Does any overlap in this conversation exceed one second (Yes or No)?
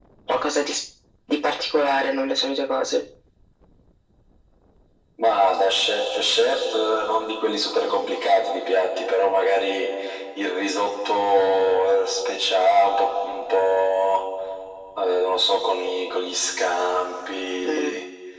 No